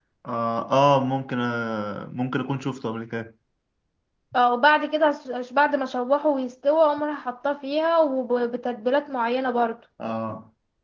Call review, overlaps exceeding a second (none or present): none